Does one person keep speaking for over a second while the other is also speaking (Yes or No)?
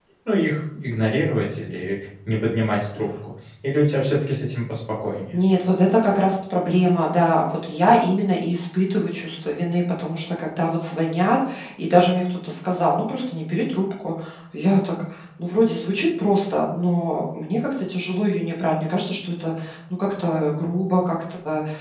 No